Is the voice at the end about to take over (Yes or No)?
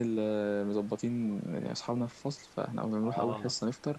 No